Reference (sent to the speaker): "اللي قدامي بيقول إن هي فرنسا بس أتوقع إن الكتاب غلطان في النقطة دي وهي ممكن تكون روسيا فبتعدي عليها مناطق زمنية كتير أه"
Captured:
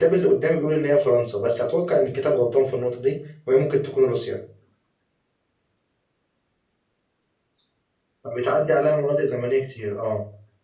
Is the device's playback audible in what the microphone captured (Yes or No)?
Yes